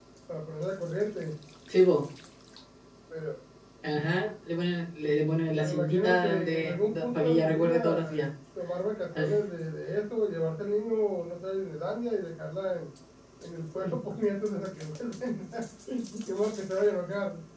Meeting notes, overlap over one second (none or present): present